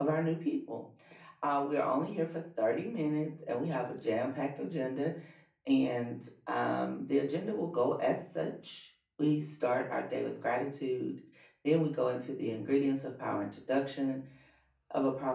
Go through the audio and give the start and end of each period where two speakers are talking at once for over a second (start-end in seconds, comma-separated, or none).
none